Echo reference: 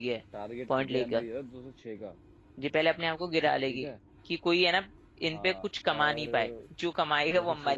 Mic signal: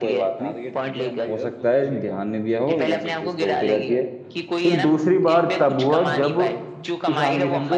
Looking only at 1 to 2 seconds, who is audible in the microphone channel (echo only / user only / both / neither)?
both